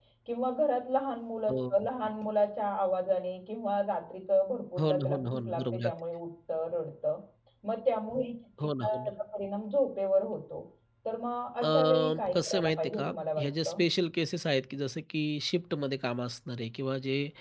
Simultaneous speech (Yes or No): Yes